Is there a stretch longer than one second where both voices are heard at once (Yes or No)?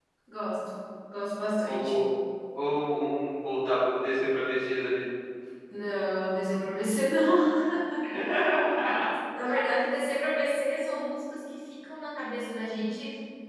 No